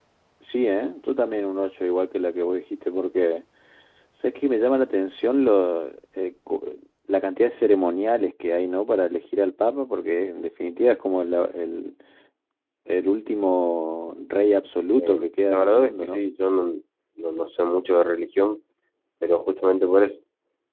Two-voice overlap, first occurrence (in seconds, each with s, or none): 15.0 s